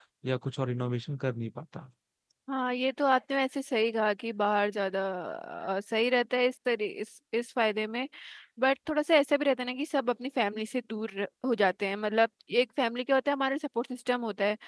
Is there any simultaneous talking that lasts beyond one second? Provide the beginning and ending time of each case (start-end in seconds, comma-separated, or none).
none